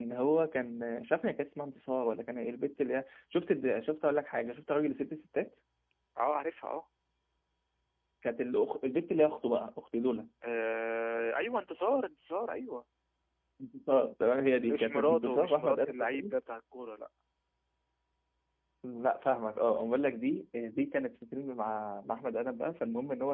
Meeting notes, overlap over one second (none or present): present